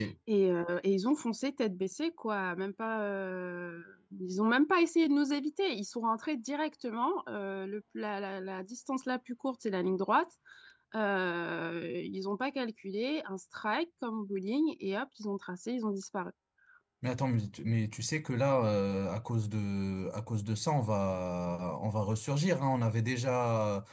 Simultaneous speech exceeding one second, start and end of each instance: none

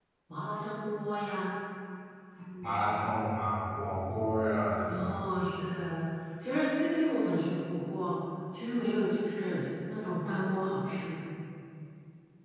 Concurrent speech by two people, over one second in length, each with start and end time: none

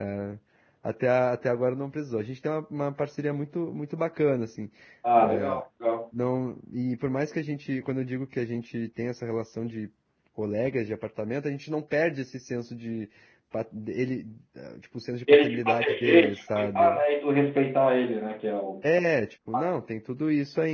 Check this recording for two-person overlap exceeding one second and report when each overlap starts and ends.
15.3-17.0

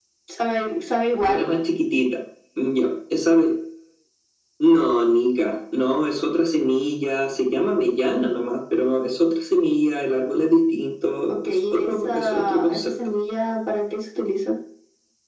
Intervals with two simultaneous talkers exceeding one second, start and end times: 11.4-12.9

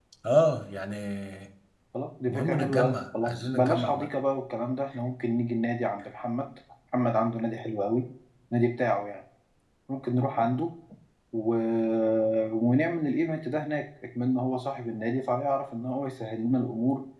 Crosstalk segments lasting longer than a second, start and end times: 2.3-4.1

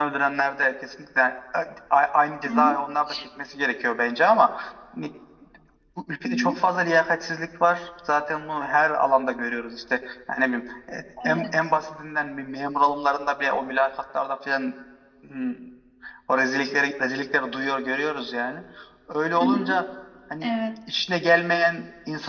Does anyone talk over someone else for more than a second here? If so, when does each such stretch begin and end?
none

